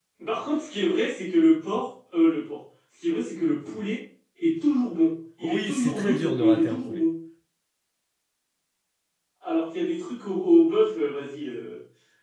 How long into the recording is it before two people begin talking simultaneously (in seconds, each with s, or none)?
5.4 s